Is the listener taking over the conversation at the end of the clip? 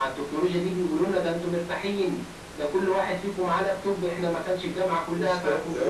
No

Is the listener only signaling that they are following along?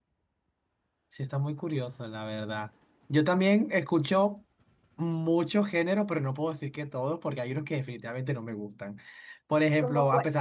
Yes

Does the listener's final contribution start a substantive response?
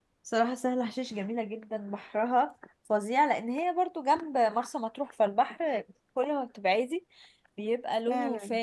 No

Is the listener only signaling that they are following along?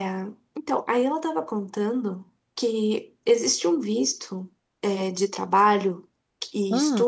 Yes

